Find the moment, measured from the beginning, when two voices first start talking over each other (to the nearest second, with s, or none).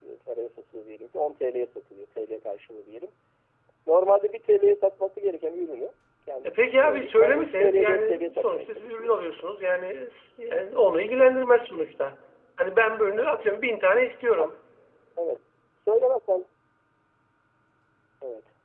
6 s